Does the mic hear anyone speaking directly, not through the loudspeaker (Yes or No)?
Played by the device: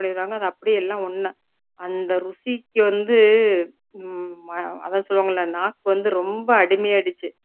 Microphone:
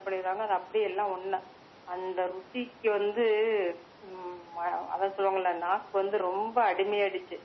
No